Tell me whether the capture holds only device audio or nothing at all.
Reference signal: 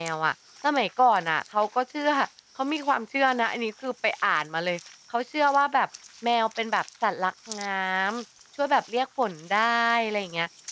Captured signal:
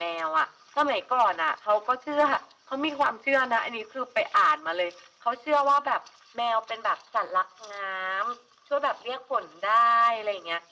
Yes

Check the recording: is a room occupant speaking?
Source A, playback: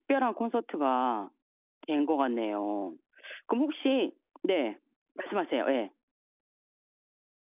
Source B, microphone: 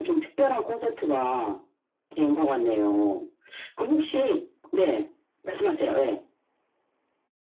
No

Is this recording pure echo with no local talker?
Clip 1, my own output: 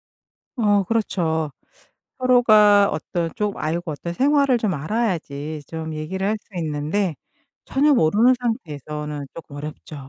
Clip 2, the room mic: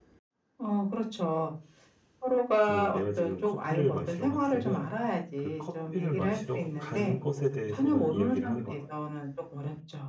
No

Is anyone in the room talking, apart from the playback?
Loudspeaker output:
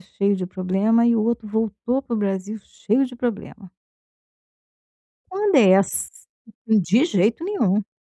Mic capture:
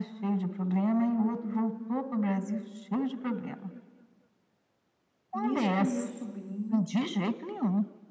Yes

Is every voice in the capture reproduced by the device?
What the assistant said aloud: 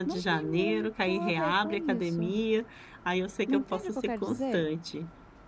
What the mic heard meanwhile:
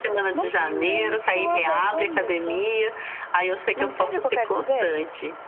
Yes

